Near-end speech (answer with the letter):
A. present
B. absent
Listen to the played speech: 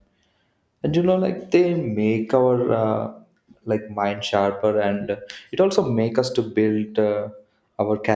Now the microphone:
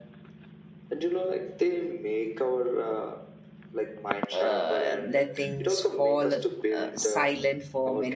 A